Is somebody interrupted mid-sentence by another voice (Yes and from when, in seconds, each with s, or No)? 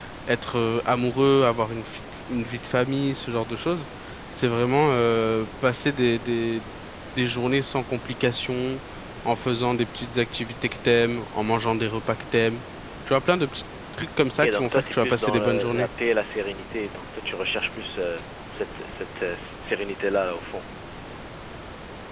Yes, from 14.4 s